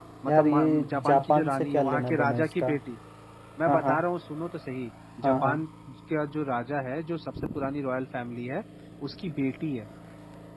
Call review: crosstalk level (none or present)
present